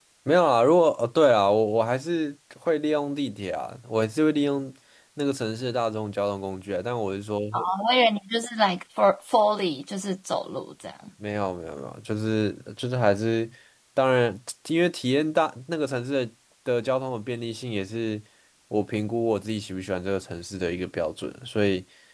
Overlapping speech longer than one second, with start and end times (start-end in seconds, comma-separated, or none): none